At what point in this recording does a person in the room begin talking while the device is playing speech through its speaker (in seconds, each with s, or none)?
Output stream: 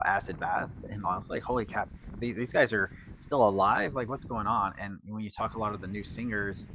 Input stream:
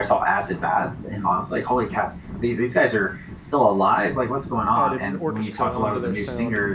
4.7 s